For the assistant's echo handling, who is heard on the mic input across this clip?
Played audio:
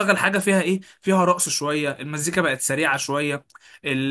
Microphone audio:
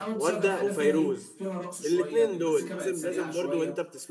both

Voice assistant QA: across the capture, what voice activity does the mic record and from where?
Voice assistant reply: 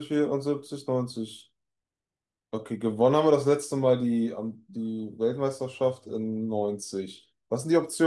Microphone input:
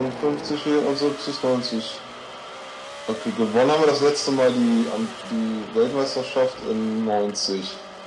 echo only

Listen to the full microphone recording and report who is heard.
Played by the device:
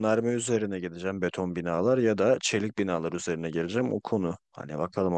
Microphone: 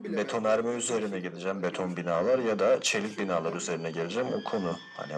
both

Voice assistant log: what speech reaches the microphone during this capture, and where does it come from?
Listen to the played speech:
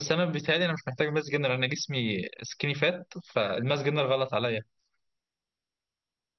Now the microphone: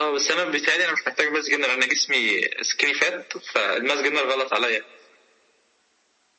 echo only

